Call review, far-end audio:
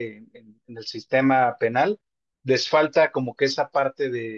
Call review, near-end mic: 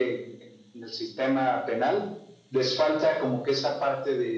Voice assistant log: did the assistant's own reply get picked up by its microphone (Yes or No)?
Yes